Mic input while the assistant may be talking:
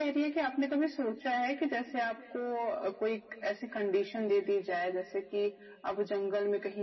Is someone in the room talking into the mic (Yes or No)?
No